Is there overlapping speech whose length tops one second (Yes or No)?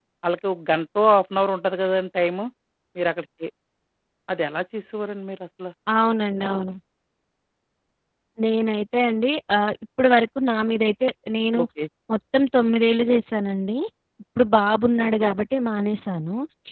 No